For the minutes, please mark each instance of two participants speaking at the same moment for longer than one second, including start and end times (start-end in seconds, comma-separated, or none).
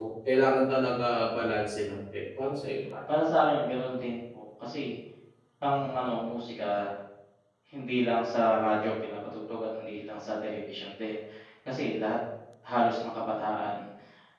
none